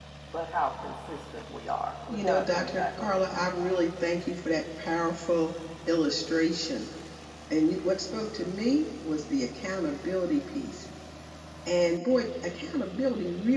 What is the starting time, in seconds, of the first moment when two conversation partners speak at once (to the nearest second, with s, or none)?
2 s